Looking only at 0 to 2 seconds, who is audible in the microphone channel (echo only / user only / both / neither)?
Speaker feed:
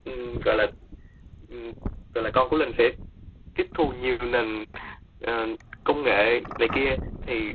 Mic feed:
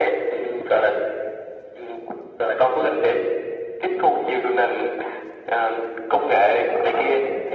echo only